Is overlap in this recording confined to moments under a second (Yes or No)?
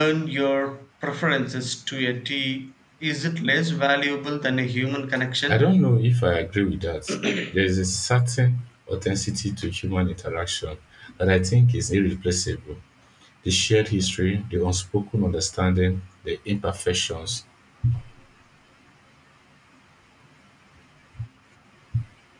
Yes